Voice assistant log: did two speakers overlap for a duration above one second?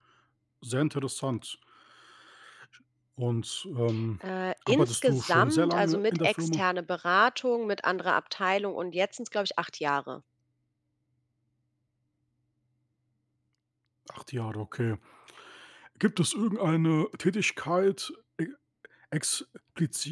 Yes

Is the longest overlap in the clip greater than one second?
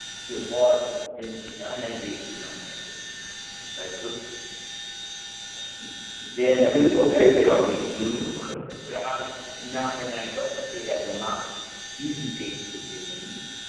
Yes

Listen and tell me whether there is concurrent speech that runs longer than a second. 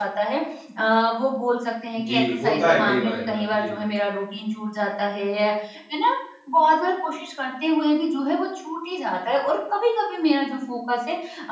Yes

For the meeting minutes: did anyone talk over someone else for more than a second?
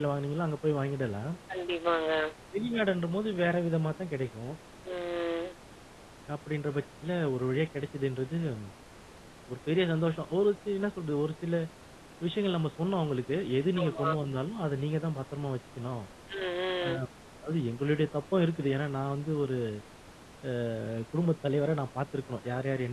No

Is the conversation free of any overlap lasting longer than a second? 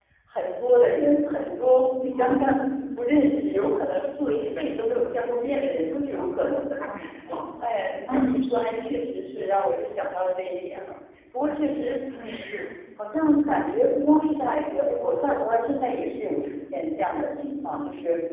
Yes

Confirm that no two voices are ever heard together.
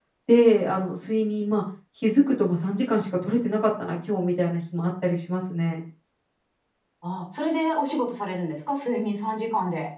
Yes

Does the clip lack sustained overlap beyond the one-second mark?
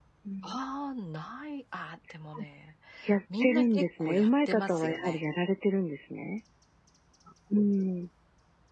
No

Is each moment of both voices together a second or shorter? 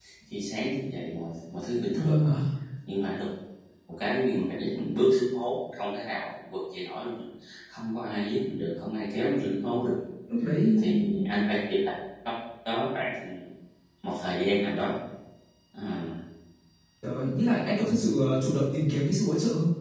Yes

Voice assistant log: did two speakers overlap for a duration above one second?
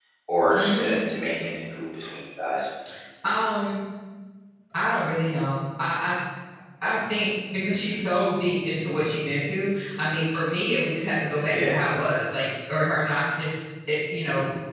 No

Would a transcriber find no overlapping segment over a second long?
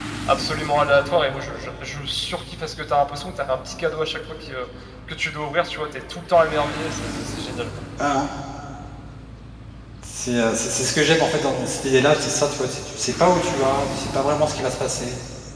Yes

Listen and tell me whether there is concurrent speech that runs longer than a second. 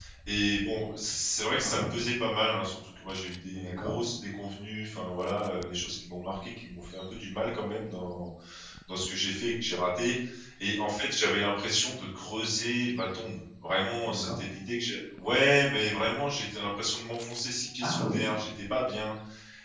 No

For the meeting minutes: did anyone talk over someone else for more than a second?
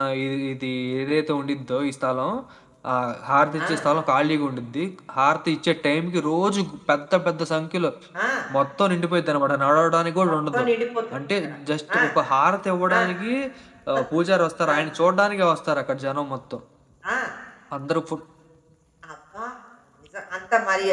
No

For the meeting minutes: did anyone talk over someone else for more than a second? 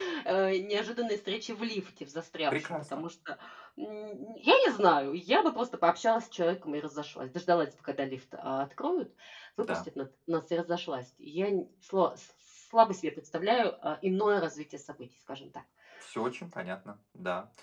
No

